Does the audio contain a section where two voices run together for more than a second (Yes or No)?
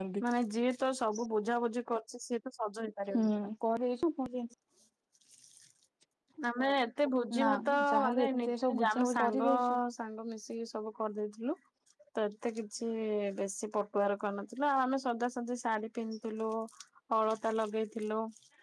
Yes